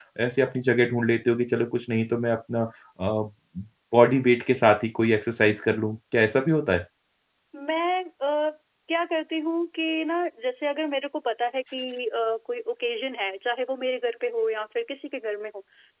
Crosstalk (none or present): none